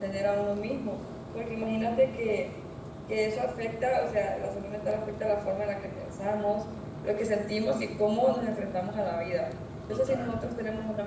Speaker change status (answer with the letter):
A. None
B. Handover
A